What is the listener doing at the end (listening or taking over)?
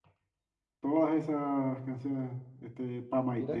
taking over